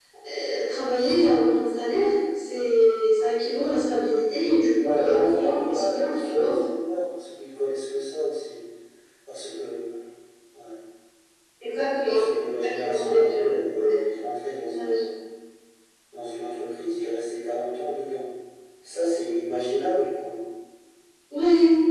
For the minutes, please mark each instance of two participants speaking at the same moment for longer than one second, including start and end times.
4.8-6.5, 12.1-14.0

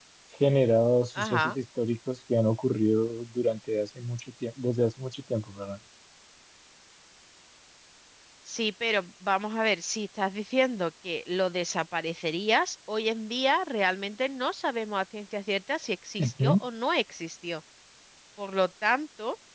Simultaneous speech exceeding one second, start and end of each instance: none

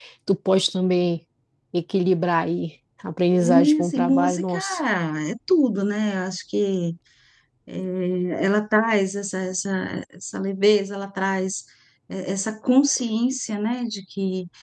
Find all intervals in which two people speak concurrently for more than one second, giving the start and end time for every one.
3.3-4.6

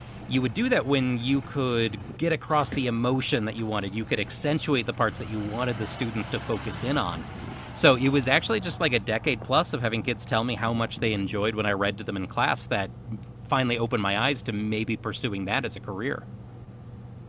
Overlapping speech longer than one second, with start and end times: none

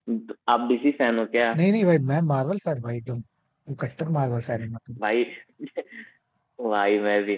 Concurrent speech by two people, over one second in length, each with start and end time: none

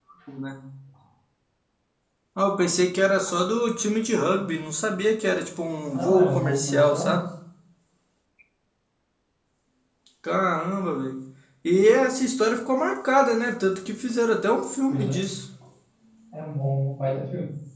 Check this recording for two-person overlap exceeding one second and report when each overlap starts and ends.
5.9-7.2

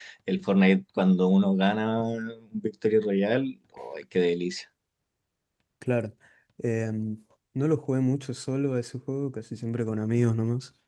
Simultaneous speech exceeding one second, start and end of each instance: none

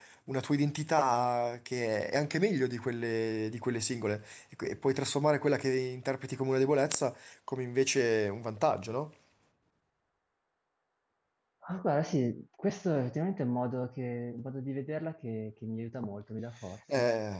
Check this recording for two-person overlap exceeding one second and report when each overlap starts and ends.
none

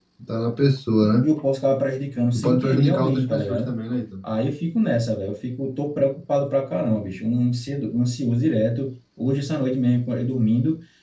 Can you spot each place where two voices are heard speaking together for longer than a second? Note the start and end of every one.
2.4-3.7

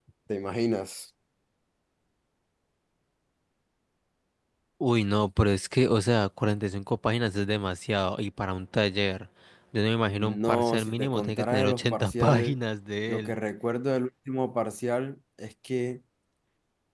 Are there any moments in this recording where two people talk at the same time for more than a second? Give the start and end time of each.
10.1-12.6

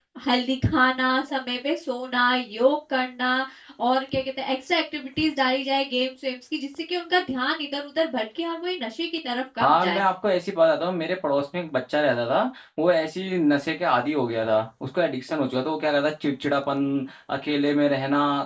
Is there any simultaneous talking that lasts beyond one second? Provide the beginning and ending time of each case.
none

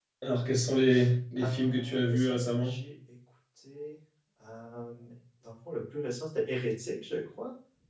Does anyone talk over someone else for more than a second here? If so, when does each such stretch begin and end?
1.4-2.8

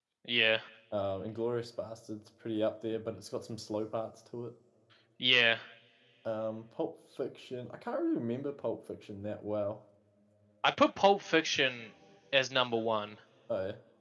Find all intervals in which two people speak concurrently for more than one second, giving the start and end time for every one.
none

